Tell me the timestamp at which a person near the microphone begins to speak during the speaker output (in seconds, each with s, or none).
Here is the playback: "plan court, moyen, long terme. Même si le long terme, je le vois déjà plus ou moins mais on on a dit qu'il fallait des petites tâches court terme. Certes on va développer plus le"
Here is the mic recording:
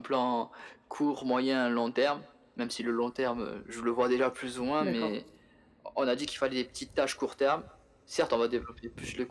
4.8 s